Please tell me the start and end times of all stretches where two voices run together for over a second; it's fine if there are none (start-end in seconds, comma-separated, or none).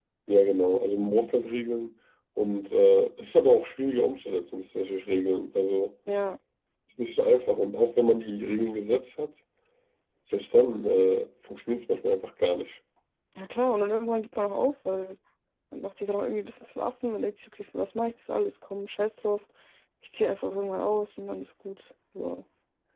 none